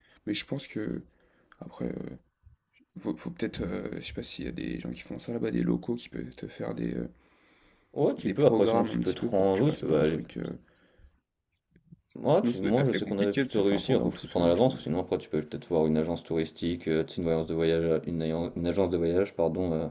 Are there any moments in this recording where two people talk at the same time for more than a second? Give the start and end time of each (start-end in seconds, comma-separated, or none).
8.2-10.1, 12.3-14.8